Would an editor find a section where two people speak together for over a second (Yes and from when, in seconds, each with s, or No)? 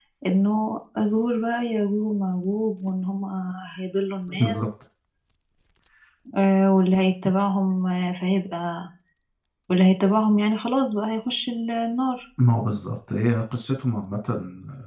No